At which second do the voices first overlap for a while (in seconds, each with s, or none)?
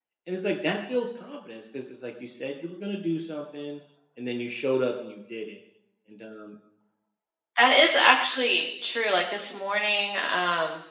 none